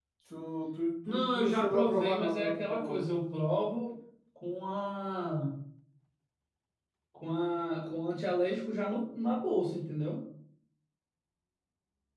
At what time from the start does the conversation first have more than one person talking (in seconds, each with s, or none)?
1.1 s